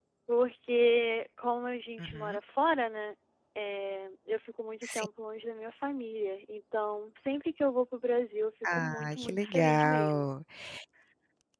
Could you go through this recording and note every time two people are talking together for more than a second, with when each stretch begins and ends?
8.7-10.2

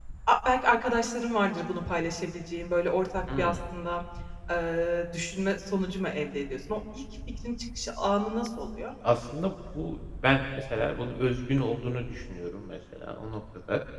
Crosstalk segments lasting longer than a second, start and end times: none

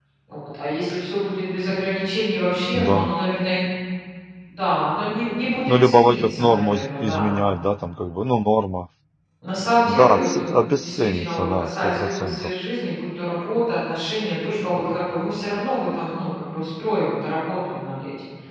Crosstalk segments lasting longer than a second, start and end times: 5.7-7.3, 9.9-12.5

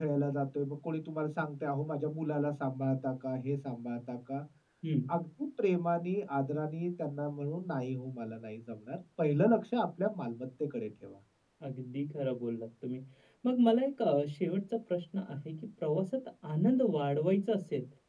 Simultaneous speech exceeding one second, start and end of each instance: none

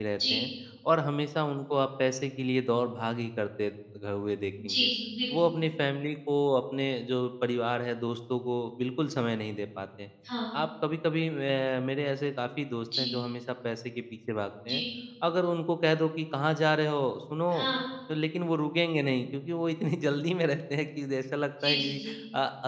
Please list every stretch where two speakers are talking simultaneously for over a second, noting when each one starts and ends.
none

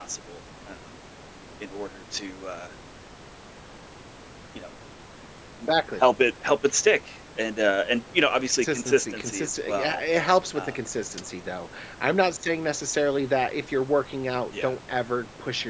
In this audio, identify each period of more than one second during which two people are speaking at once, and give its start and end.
8.6-10.0

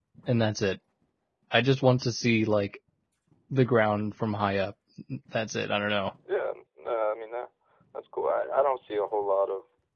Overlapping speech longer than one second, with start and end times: none

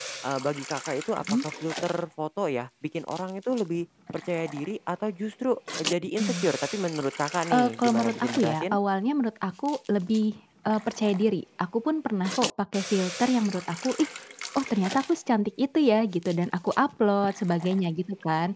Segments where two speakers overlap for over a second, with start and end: 7.5-8.8

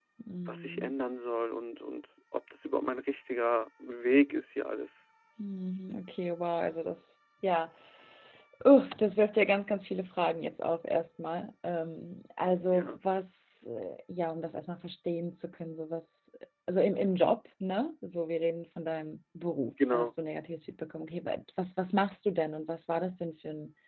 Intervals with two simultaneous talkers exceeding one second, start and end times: none

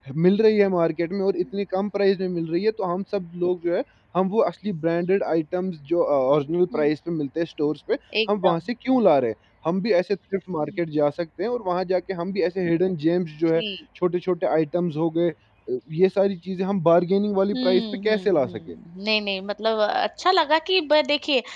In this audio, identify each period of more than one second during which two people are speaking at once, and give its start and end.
17.5-18.8

